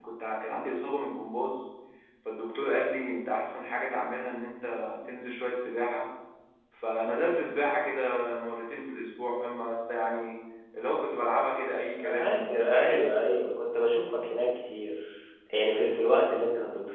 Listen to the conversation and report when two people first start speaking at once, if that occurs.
12.0 s

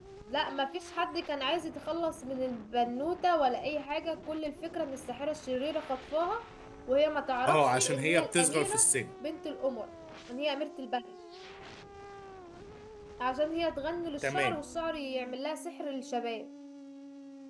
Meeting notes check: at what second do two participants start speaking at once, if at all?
7.5 s

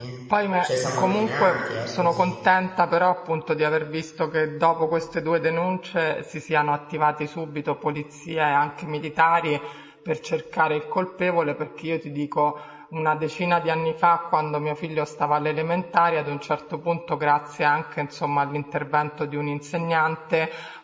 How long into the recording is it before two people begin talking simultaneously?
0.6 s

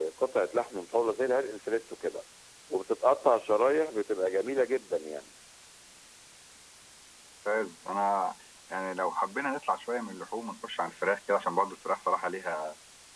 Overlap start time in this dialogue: none

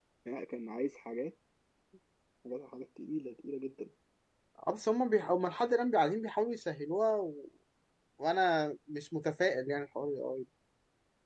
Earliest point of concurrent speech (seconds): none

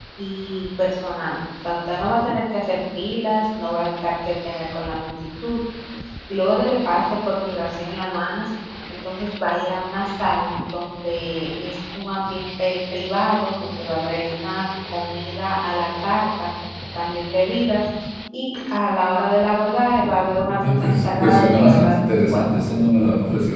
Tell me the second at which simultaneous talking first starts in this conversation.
20.4 s

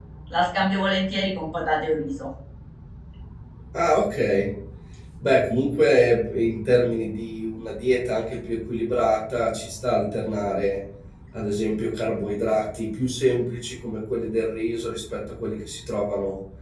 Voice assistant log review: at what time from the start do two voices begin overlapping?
none

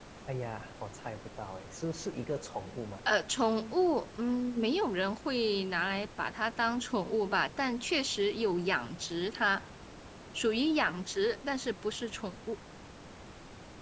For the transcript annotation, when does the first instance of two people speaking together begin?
none

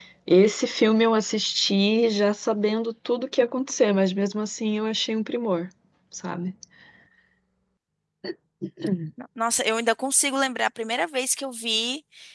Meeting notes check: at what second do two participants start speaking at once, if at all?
none

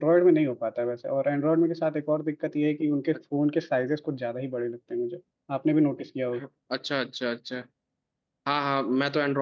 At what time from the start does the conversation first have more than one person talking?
none

